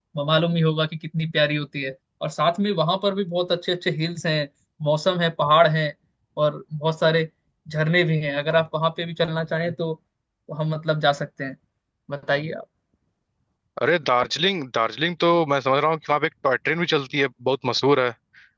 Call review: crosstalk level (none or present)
none